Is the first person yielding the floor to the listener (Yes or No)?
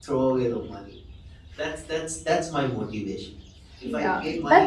Yes